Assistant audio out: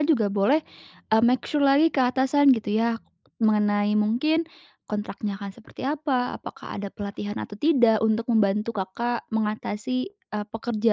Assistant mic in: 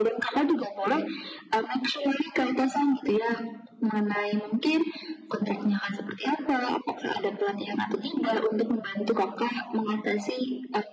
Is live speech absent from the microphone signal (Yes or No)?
Yes